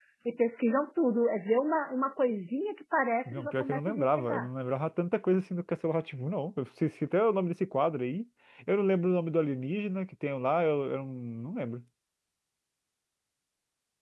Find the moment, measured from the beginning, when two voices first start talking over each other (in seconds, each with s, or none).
3.2 s